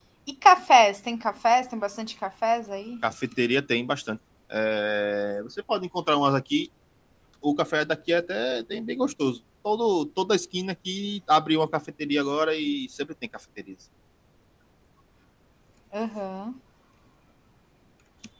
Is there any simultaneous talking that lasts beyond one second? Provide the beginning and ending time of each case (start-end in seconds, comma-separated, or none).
none